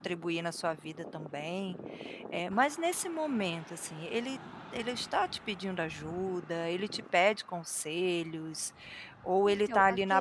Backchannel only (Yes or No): No